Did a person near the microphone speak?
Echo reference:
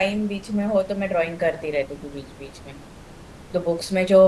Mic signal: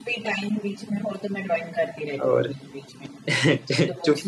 Yes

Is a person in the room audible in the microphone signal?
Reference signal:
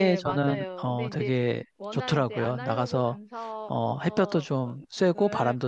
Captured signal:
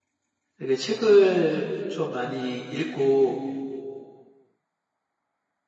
Yes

